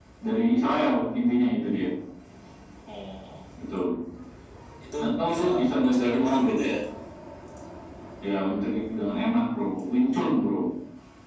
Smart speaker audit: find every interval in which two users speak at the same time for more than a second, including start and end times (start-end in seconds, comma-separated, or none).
5.1-6.5